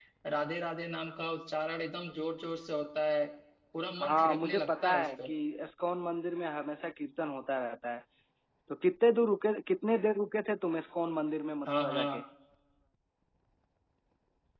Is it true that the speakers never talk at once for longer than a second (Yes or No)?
No